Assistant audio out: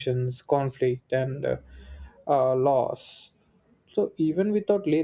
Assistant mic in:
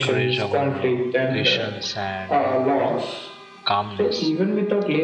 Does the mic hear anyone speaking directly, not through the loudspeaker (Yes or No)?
Yes